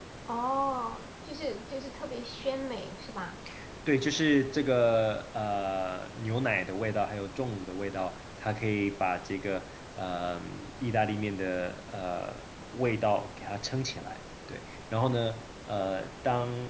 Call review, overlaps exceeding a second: none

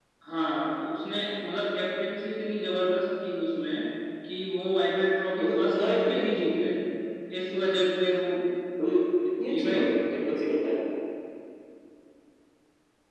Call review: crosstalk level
present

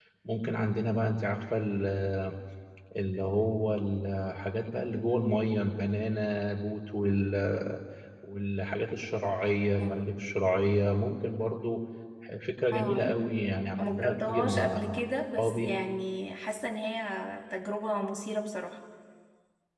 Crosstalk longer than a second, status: present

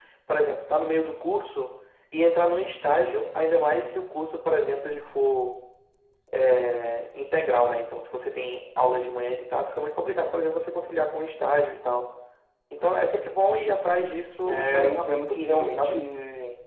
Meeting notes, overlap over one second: present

